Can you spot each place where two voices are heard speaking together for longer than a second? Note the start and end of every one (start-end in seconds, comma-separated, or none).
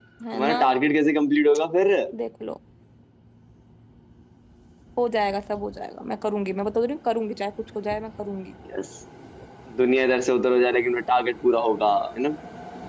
none